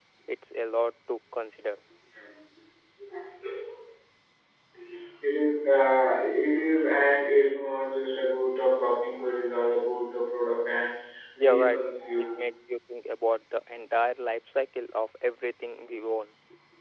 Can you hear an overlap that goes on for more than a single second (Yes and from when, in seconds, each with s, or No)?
No